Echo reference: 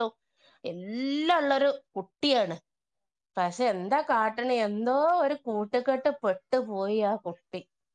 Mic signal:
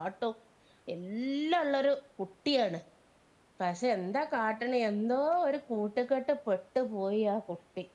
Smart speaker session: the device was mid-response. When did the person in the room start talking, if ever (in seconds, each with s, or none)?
none